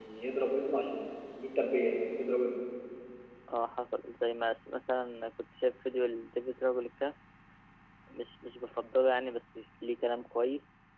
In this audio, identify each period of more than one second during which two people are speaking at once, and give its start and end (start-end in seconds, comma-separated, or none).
none